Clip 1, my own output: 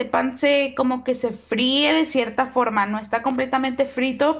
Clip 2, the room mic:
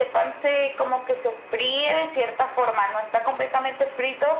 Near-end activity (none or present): none